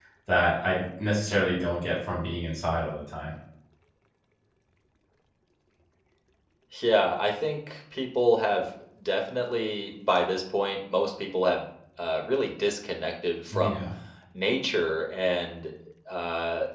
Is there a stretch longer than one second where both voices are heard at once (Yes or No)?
No